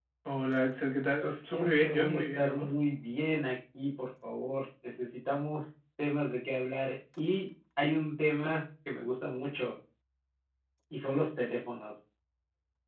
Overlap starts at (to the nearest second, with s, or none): 1 s